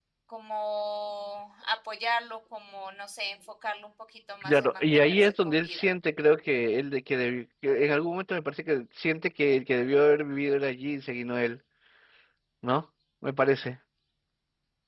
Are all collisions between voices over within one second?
No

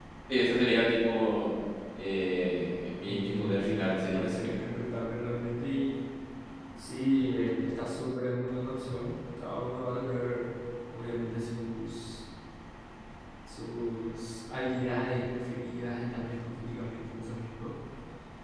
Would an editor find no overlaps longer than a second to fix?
No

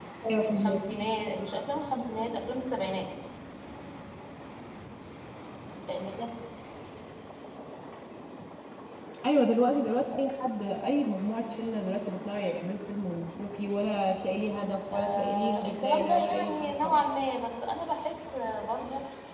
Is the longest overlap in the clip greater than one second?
Yes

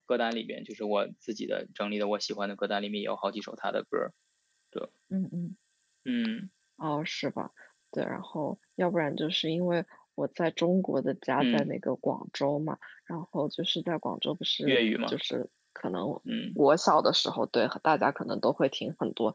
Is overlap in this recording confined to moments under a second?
Yes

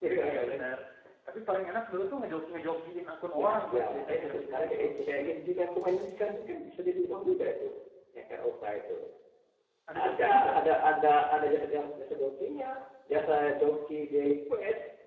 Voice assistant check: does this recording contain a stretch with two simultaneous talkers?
Yes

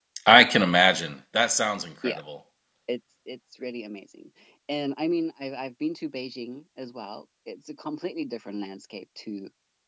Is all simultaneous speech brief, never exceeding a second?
Yes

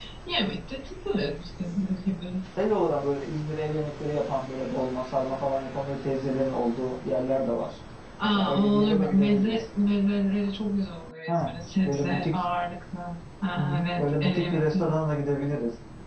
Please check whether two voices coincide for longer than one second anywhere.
Yes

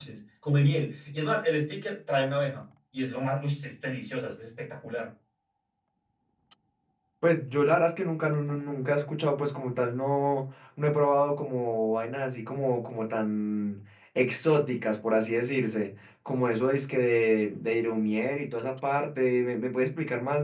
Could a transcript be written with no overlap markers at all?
Yes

